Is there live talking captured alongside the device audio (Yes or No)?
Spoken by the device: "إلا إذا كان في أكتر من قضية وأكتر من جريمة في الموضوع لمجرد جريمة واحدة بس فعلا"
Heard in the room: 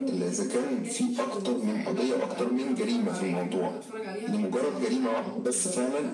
Yes